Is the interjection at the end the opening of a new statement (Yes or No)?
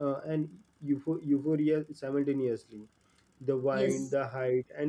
No